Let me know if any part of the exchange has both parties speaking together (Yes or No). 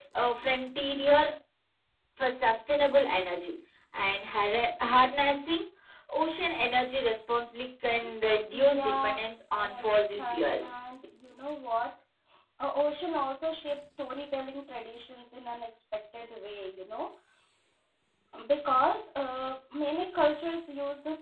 Yes